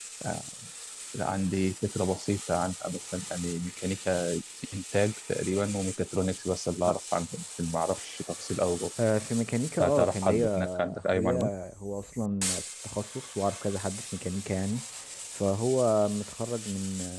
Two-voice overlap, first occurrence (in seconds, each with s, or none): 9.8 s